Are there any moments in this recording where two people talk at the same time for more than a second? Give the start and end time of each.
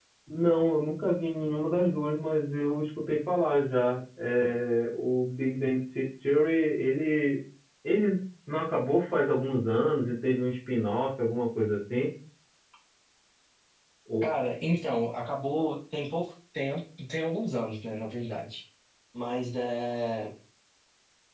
none

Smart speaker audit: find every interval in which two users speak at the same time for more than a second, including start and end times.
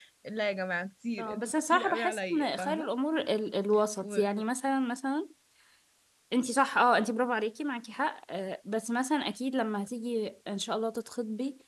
1.2-2.9

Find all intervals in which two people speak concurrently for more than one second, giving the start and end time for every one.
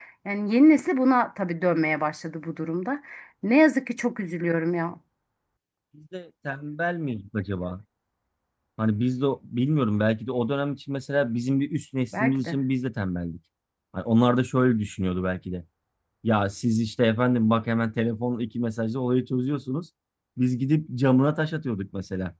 none

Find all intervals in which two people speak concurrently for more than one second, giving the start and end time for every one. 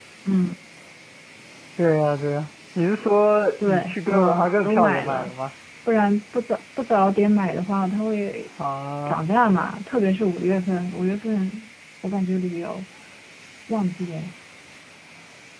3.6-5.3

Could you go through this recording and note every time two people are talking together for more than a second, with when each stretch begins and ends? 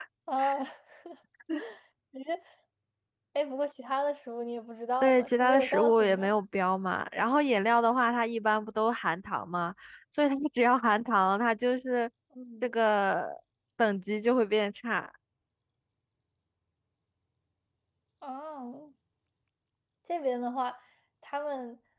5.0-6.3

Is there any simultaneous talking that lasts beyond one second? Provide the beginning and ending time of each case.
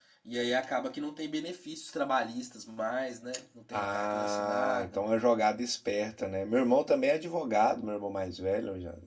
3.7-5.0

